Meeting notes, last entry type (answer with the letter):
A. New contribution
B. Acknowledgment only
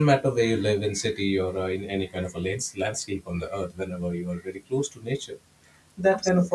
B